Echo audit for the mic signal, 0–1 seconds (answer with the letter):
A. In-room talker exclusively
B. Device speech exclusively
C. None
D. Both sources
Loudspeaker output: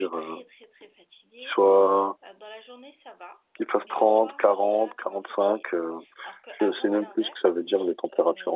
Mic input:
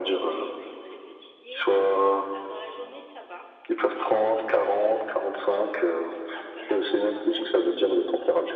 B